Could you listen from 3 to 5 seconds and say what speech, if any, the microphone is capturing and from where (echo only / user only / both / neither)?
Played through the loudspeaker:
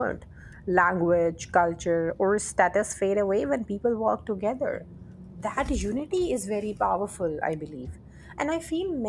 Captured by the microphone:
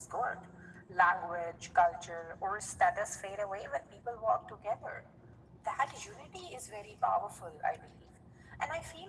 echo only